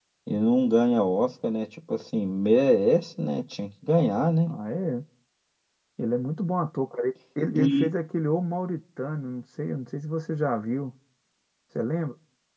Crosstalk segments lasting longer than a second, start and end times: none

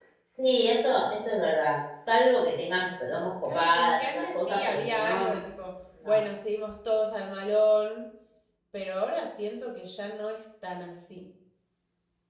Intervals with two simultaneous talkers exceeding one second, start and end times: 3.4-5.2

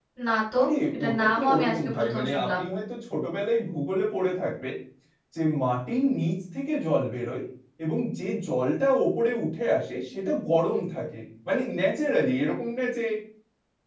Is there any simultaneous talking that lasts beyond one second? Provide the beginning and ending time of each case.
0.9-2.6

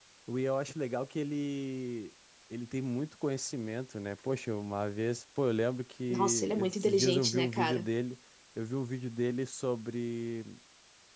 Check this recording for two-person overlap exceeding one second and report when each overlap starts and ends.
6.1-7.9

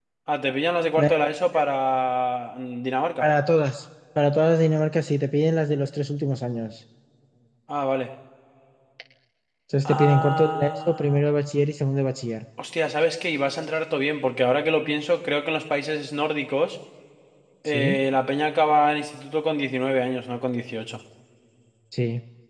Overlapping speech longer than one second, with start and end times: 9.8-11.3

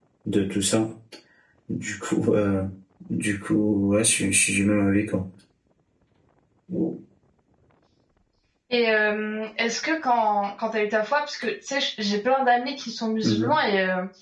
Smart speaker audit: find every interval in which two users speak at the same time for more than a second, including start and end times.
none

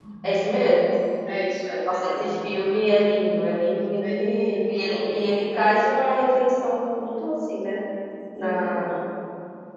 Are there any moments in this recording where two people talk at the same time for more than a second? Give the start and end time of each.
4.0-5.4

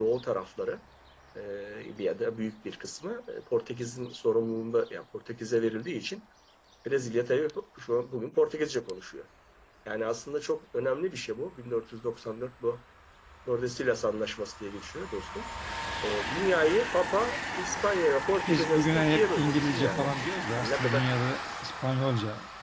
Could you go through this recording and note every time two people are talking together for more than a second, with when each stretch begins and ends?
18.5-20.1

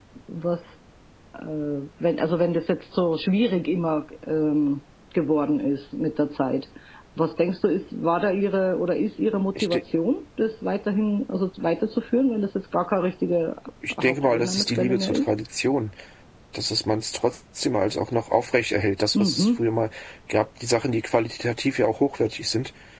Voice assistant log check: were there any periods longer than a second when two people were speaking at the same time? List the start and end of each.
14.0-15.3

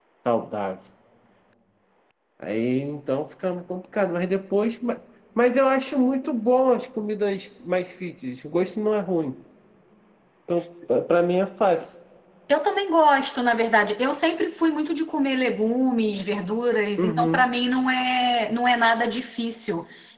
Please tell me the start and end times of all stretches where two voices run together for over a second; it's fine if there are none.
none

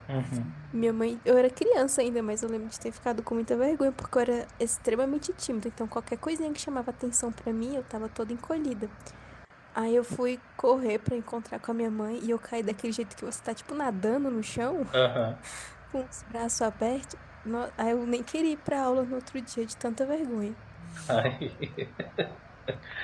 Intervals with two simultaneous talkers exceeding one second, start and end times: none

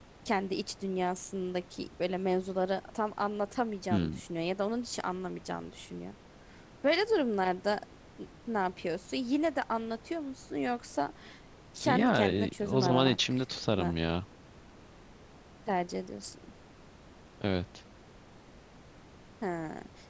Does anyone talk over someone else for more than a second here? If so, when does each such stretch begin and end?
11.8-13.2

